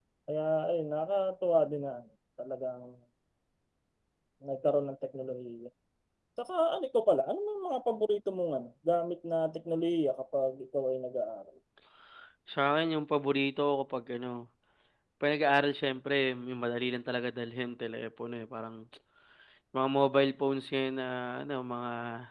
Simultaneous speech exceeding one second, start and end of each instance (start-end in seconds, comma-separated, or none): none